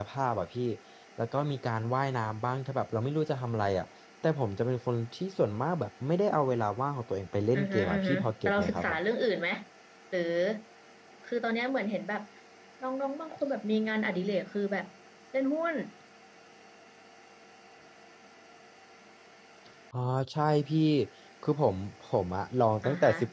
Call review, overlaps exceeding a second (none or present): present